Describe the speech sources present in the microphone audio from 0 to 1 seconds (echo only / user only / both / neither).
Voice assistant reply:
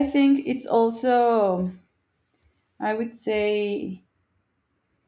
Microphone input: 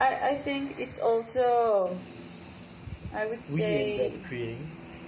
echo only